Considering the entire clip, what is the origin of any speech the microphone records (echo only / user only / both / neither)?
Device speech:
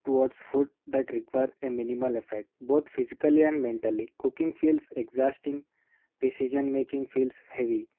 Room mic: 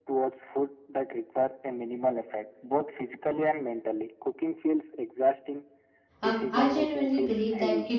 both